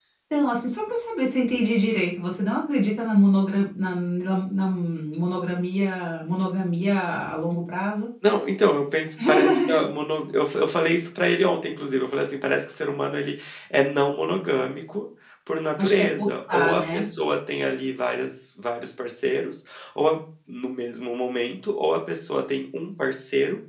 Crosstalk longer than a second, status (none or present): present